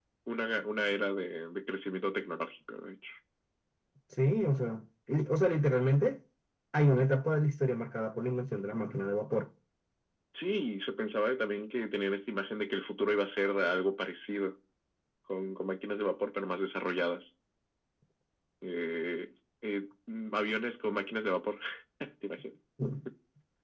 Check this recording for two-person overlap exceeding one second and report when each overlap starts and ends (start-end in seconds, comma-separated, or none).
none